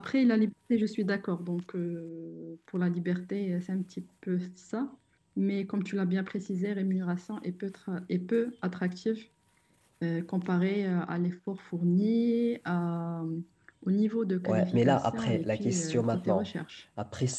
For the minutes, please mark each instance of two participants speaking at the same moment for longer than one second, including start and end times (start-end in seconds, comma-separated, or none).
14.4-16.5